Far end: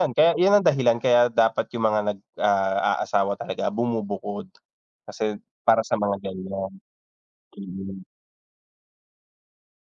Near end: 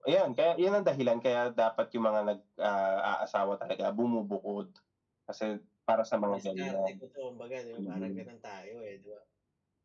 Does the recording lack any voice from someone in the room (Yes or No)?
No